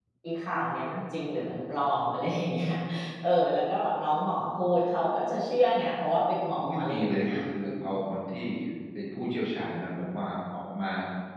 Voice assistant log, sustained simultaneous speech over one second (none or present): present